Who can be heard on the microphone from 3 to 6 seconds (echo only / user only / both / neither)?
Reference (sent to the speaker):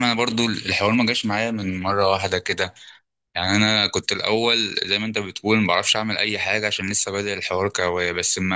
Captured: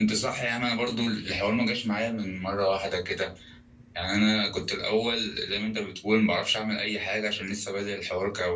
echo only